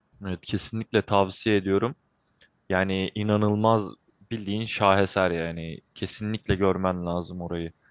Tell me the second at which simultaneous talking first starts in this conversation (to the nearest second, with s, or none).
none